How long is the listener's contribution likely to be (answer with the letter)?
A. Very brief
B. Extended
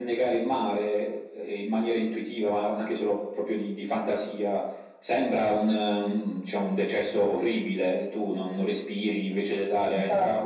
A